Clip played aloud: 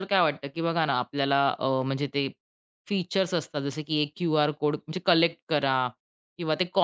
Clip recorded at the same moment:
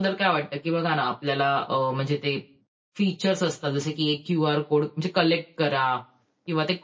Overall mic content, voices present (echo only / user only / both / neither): echo only